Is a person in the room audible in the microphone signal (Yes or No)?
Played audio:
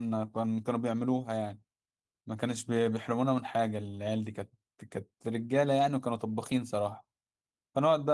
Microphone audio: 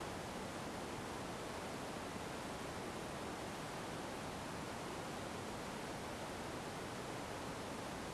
No